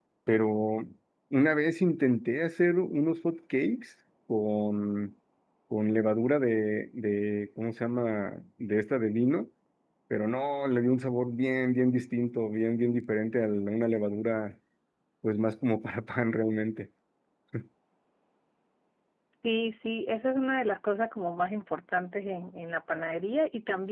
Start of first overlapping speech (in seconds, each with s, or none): none